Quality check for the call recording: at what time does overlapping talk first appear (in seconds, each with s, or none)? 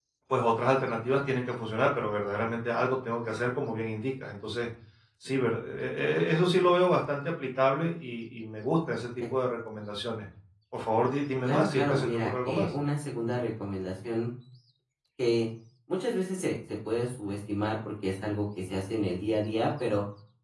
11.5 s